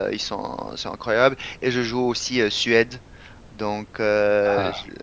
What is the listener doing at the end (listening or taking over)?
listening